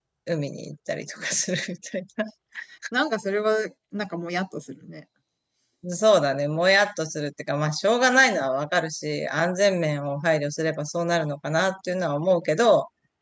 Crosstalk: none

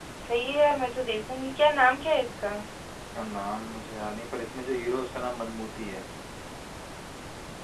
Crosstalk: none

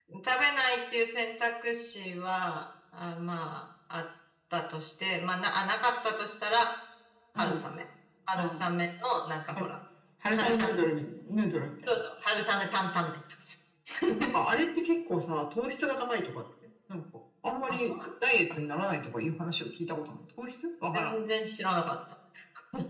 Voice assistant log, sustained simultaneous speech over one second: none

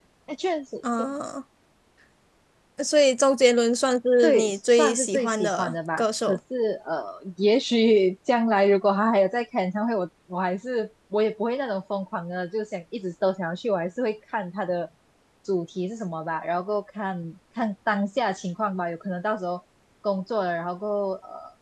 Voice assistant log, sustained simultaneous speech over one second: present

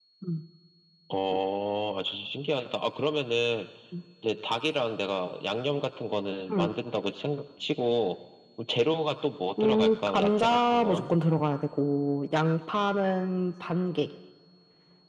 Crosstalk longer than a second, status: present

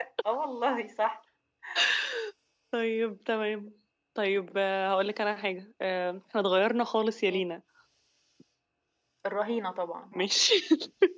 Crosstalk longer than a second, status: none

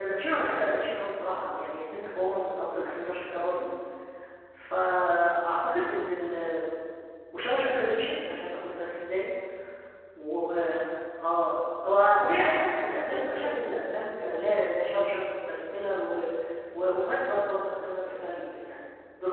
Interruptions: present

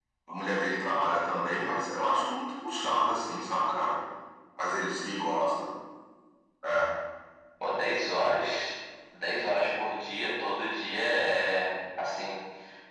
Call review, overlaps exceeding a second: none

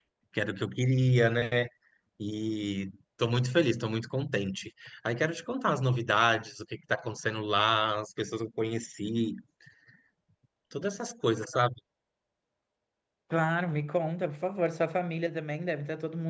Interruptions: none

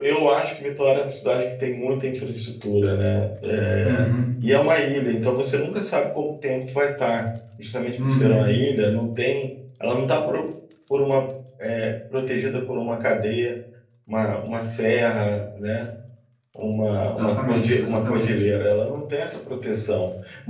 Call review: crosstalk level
present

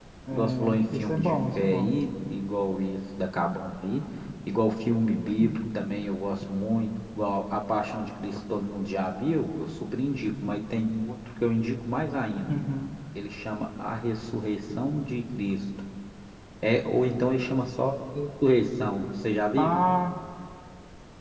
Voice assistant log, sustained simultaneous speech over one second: present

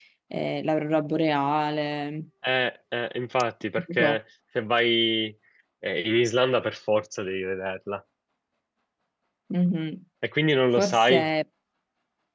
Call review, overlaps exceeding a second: none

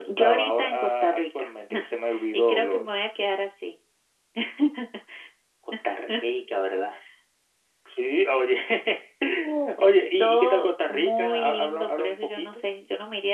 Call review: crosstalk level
present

